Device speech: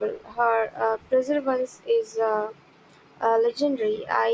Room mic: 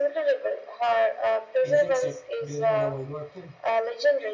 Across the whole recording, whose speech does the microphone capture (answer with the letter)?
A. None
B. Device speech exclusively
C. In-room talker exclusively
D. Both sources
D